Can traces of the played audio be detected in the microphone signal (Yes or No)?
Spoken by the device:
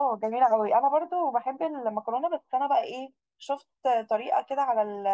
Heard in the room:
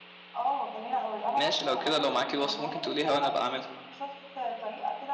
Yes